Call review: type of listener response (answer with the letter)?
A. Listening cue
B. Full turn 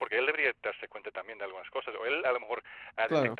A